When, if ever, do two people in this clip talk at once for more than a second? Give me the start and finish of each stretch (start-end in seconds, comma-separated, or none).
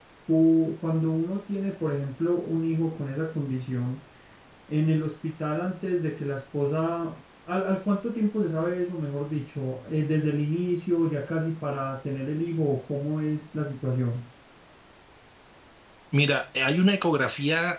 none